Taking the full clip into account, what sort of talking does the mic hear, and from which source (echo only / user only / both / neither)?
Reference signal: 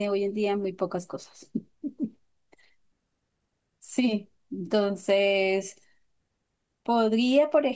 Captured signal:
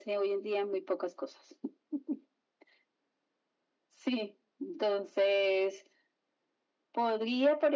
echo only